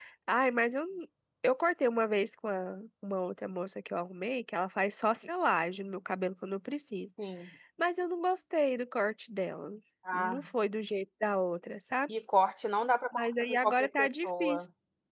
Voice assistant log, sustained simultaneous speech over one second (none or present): present